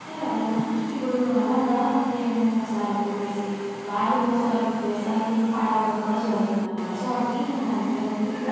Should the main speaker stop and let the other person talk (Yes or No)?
Yes